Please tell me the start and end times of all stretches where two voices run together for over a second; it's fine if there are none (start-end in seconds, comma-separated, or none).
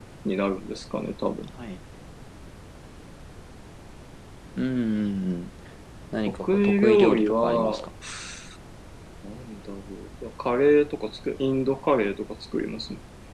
6.3-7.9